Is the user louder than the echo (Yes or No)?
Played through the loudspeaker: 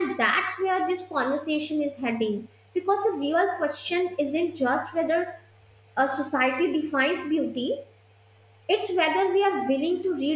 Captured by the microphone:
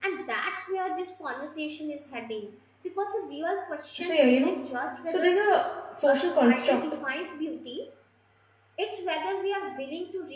Yes